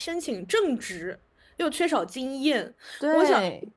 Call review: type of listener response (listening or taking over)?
listening